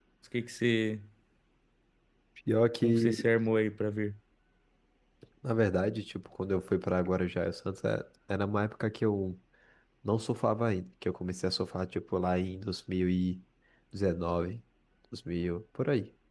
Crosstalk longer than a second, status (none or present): none